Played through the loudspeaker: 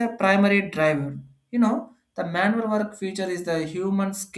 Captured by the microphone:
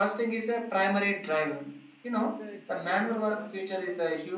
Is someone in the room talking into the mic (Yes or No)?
Yes